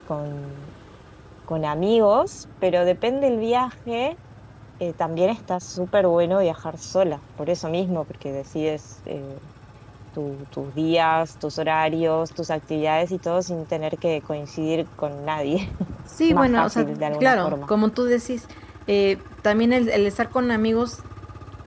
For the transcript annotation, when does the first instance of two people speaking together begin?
16.3 s

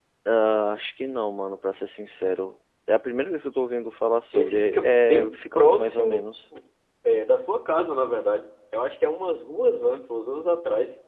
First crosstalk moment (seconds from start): 4.3 s

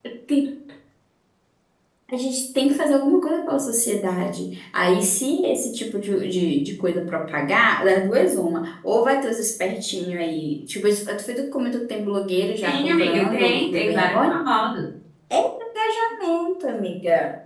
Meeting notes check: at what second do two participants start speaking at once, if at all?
12.6 s

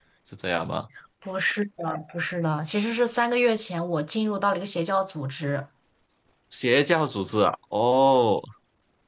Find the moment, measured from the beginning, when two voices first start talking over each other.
none

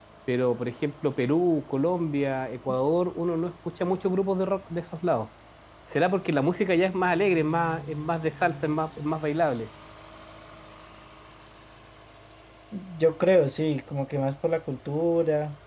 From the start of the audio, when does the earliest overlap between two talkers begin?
none

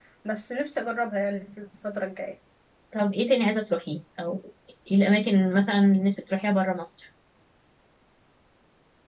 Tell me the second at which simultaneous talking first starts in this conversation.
none

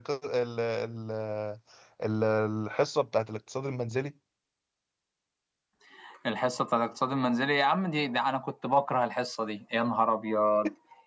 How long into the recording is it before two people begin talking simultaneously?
none

